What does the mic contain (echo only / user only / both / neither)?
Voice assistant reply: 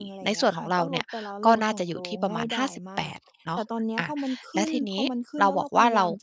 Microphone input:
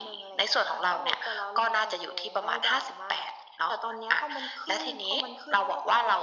echo only